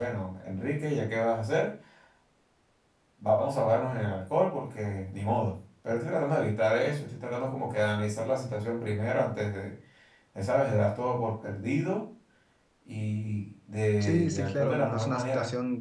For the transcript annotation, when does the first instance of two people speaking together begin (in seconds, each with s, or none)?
14.0 s